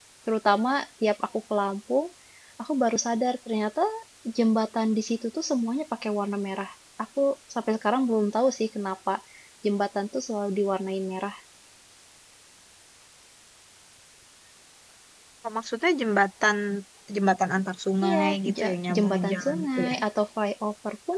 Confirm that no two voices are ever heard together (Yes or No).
No